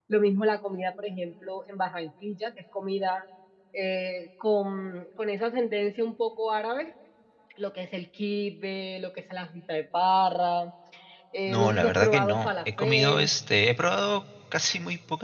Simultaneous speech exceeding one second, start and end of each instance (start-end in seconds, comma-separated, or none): 11.5-13.3